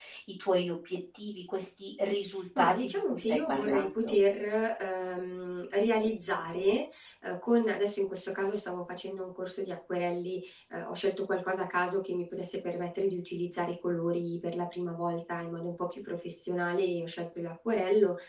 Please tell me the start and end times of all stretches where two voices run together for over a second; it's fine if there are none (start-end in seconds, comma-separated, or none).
2.6-4.2